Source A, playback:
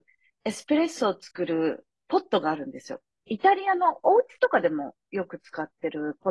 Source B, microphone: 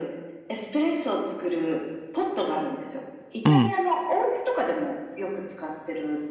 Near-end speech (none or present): present